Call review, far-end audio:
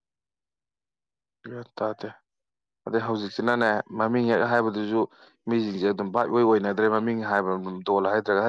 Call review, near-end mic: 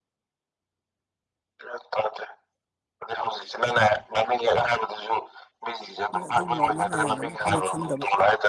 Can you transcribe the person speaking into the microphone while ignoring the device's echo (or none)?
ꯃꯣꯏ ꯑꯗꯨꯒꯨꯝꯕ ꯑꯃ ꯂꯩꯔꯝꯒꯅꯤ ꯑꯈꯣꯏꯅ ꯈꯪꯗꯕ